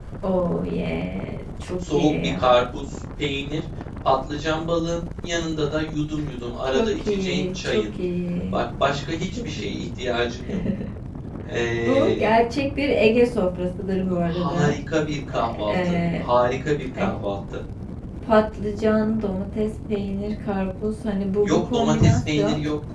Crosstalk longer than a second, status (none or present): present